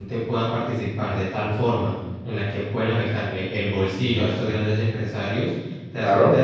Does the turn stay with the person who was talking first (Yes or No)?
Yes